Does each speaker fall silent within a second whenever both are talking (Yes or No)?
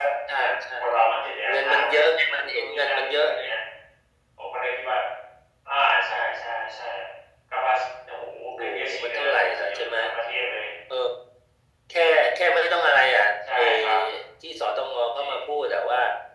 No